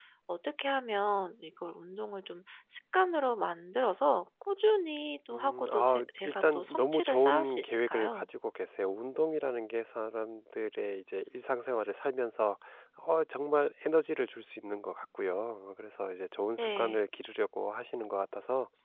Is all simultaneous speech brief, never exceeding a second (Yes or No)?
No